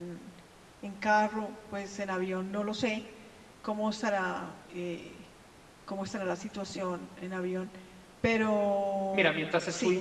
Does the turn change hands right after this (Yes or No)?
Yes